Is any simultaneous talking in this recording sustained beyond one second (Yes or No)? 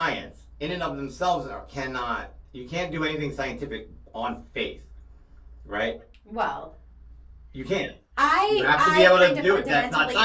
Yes